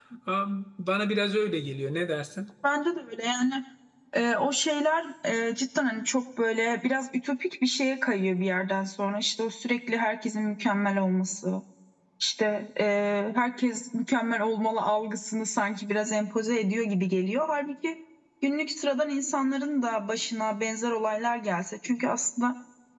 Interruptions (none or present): none